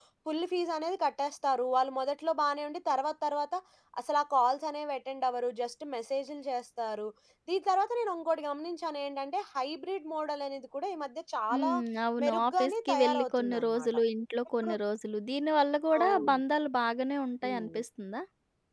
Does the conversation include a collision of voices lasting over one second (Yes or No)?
Yes